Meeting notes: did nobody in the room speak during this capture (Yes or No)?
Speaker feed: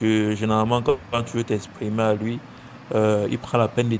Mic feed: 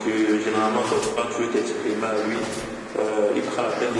Yes